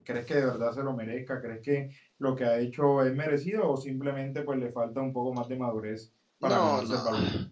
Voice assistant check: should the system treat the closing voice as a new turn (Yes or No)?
Yes